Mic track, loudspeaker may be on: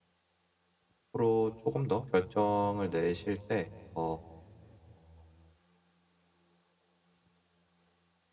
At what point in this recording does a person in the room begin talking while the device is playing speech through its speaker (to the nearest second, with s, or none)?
1 s